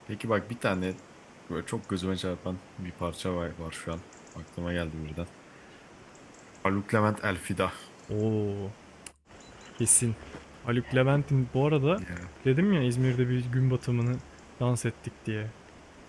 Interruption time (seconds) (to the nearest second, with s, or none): none